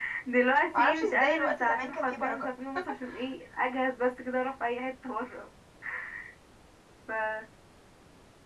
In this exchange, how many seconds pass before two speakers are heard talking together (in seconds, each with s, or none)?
0.7 s